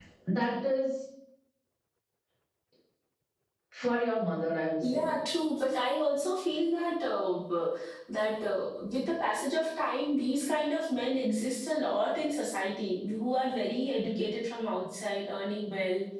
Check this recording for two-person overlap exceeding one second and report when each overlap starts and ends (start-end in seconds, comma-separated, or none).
none